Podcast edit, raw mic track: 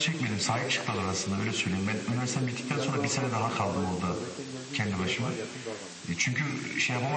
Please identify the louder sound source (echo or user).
echo